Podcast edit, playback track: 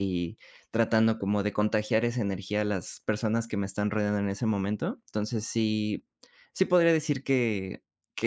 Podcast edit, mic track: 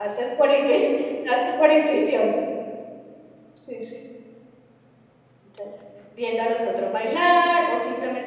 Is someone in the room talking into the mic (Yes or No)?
Yes